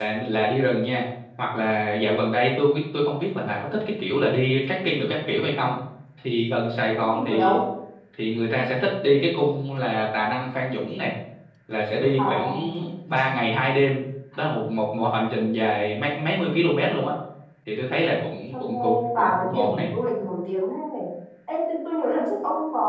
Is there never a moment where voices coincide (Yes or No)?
No